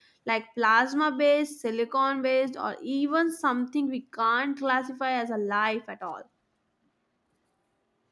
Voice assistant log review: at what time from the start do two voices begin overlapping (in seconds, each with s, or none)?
none